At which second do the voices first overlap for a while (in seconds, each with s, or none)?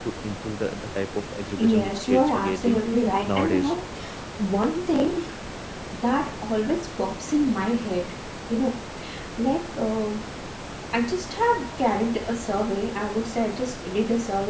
1.6 s